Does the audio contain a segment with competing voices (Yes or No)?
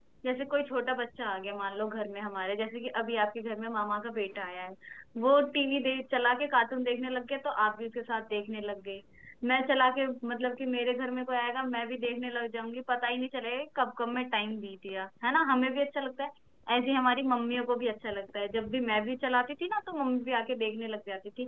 No